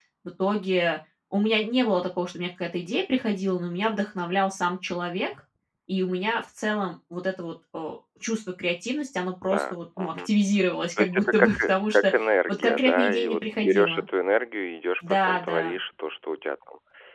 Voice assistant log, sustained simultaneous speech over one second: present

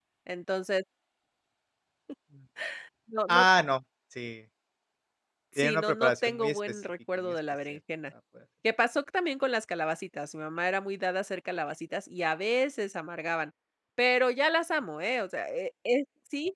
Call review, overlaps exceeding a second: present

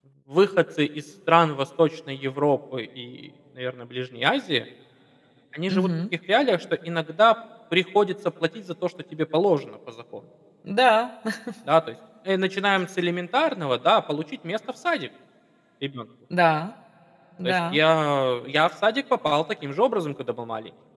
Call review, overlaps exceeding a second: none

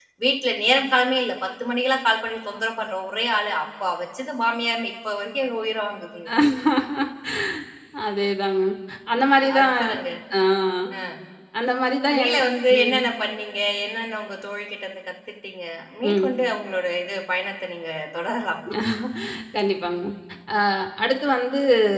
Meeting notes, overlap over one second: none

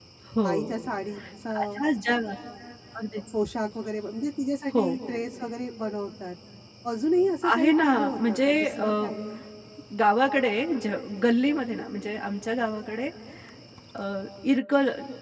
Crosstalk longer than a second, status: present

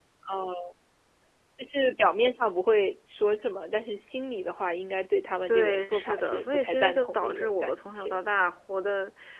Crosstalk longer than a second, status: present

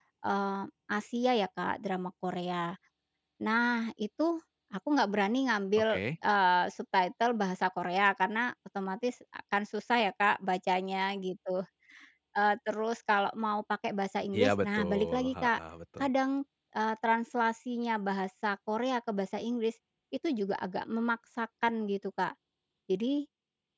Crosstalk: present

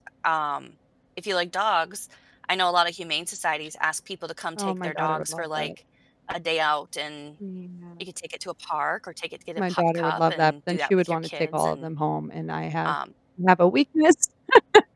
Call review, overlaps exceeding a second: present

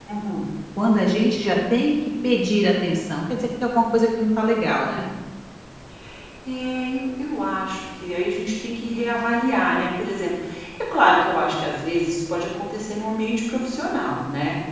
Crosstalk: none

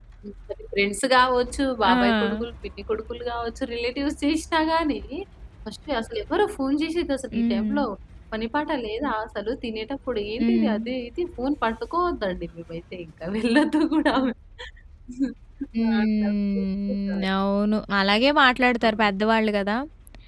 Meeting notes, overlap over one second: present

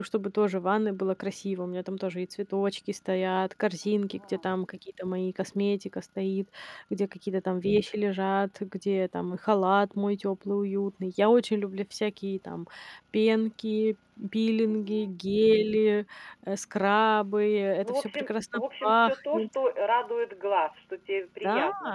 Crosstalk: present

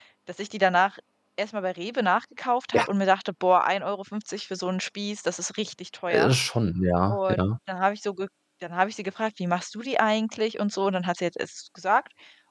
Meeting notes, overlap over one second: none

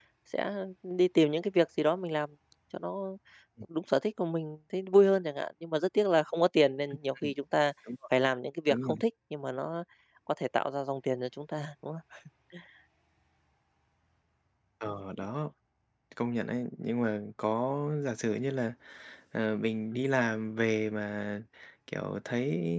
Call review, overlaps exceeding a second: none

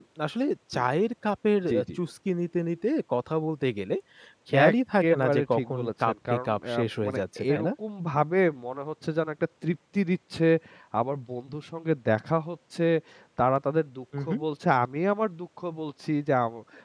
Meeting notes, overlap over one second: present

